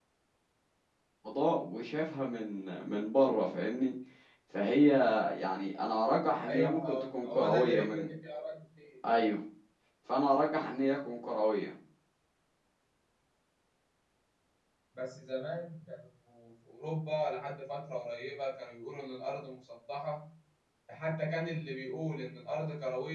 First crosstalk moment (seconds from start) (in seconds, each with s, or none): 6.5 s